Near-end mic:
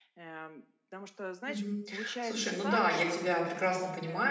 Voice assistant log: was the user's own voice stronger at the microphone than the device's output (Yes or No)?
Yes